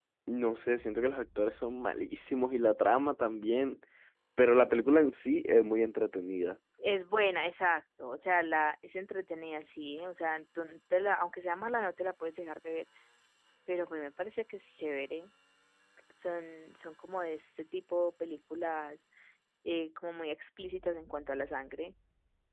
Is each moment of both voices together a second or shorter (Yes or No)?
Yes